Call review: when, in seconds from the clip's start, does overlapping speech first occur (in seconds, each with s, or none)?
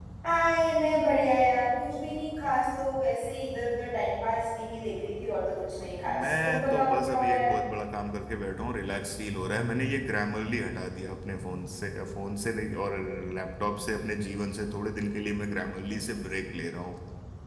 6.1 s